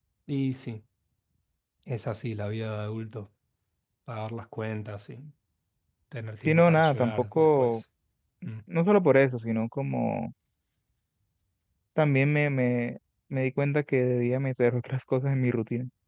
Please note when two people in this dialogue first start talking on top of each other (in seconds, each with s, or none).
6.5 s